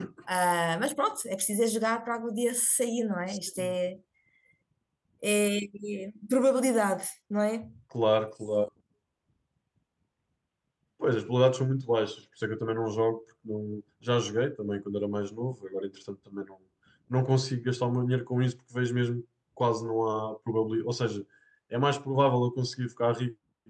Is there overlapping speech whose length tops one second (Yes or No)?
No